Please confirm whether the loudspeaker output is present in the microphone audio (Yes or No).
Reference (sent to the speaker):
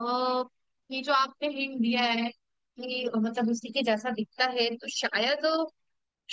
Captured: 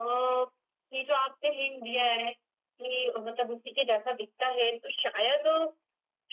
Yes